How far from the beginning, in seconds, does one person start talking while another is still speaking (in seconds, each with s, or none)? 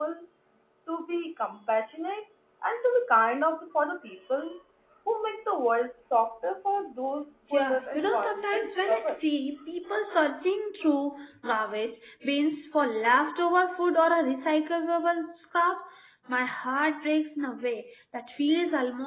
7.5 s